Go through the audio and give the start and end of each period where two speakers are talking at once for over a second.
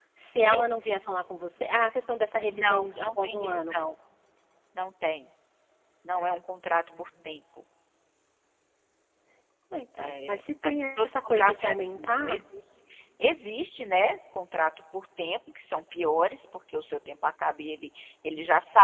2.5-3.8, 10.0-12.4

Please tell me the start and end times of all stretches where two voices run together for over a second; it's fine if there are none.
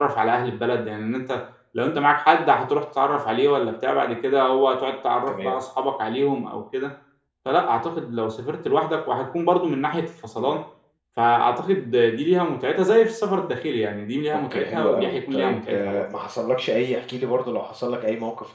14.3-16.1

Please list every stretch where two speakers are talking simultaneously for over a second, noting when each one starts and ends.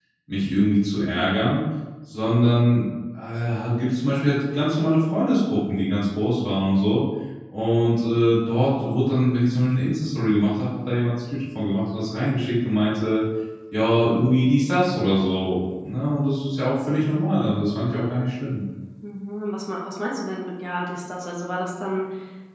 none

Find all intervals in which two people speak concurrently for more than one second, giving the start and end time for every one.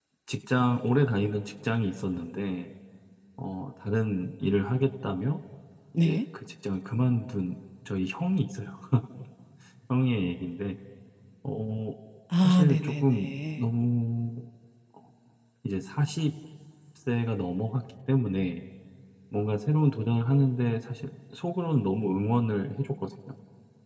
12.4-13.7

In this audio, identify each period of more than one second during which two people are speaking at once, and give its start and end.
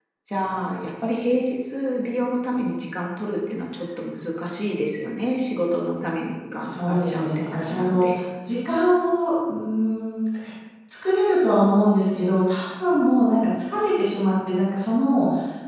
6.6-8.2

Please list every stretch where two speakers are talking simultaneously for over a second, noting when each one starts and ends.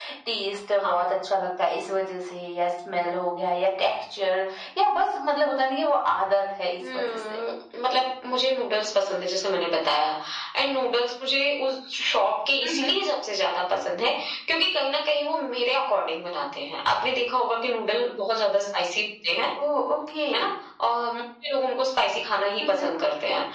none

